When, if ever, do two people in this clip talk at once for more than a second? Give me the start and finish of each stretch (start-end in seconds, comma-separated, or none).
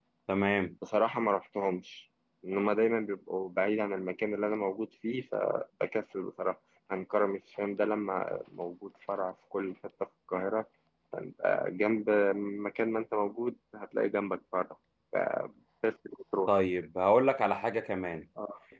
none